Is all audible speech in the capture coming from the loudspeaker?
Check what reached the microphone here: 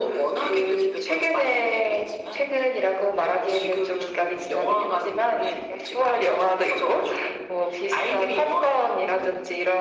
Yes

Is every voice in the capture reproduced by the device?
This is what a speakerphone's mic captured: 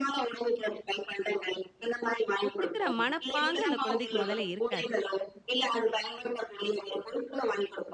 No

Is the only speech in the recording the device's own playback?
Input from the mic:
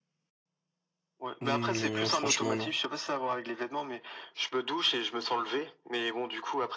No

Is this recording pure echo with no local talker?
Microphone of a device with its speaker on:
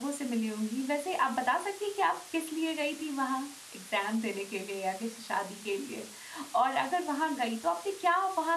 No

